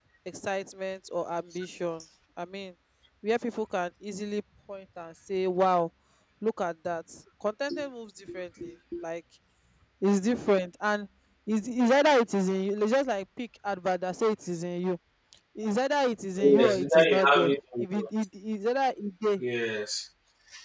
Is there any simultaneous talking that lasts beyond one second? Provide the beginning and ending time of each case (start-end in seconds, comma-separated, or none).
16.4-18.1